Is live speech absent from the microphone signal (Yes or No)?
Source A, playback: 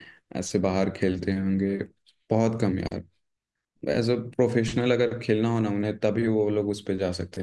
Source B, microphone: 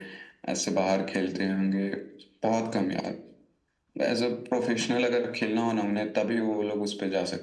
Yes